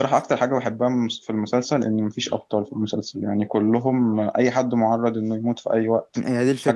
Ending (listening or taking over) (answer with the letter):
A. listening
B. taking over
B